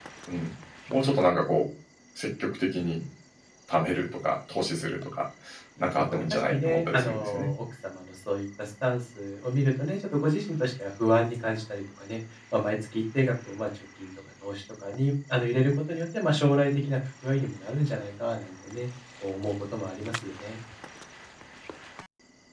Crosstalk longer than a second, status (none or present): present